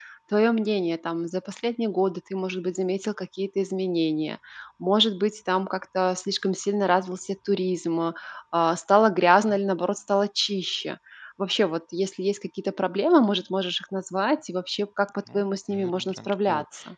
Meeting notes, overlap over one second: present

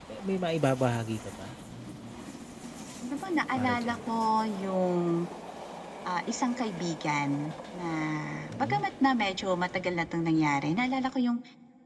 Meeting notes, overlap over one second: none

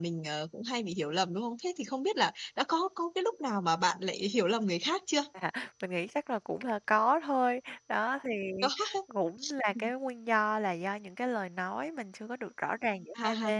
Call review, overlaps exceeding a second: none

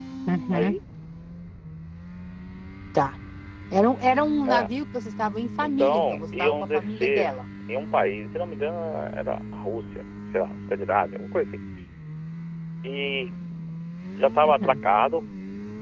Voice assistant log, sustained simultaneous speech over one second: present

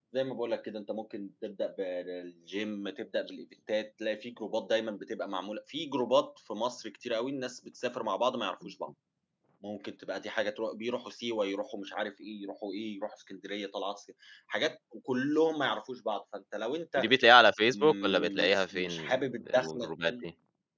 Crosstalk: present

